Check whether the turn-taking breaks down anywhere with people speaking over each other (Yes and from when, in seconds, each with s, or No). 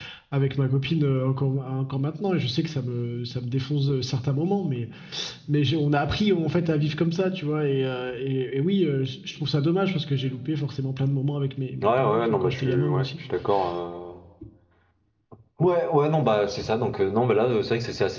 Yes, from 11.8 s